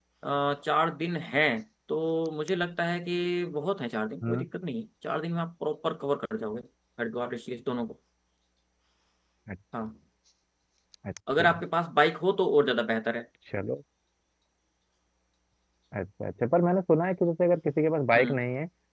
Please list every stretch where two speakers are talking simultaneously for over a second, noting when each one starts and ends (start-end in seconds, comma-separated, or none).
none